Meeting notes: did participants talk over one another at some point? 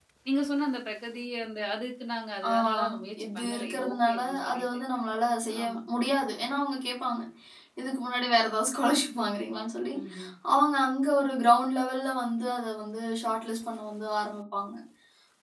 Yes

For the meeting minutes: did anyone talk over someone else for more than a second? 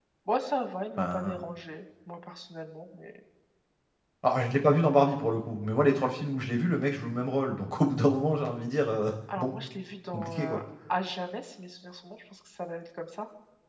No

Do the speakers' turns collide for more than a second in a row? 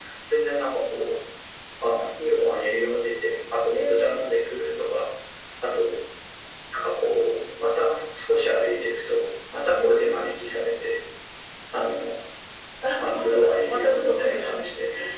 Yes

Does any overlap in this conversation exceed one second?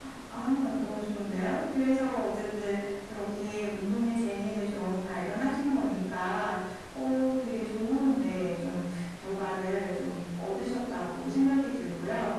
No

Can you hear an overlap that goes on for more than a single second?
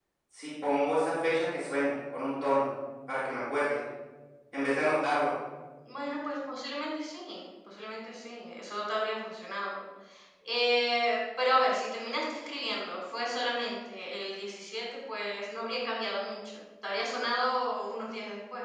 No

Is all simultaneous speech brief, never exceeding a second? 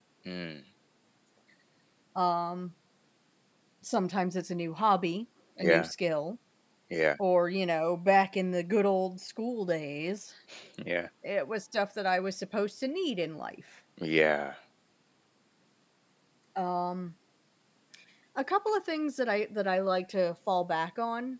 Yes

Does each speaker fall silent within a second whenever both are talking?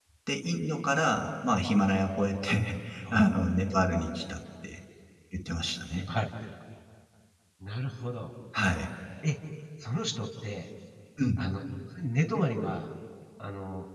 Yes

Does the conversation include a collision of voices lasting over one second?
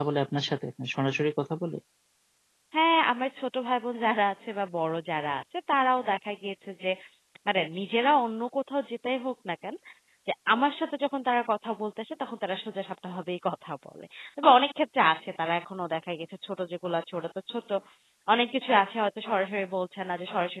No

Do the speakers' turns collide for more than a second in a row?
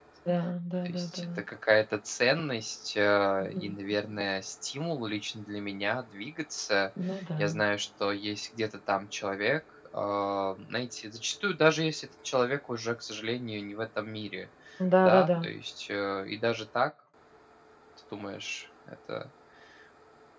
No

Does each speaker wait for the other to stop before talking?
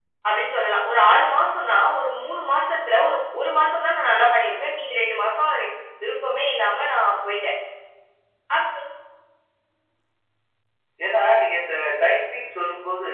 Yes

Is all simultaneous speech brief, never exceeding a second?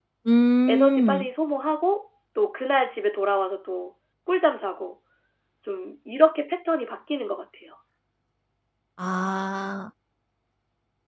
Yes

